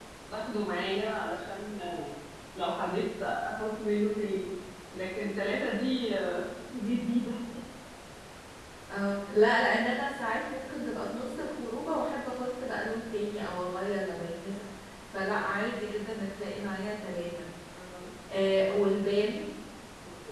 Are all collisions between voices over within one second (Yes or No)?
Yes